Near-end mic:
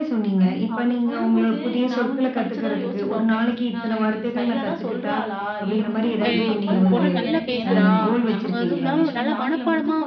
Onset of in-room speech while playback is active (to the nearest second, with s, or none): 6 s